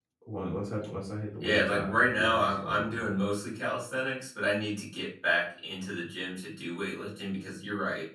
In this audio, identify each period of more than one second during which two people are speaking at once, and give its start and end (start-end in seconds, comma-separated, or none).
1.4-3.1